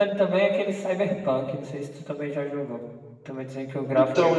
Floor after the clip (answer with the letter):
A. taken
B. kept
A